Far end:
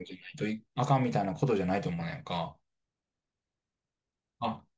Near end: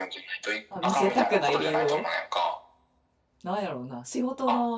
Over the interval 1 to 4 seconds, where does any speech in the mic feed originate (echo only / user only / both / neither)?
both